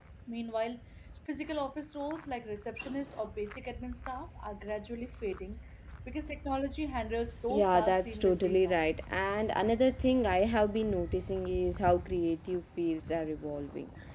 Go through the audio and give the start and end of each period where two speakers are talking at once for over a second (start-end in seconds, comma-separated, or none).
7.5-8.8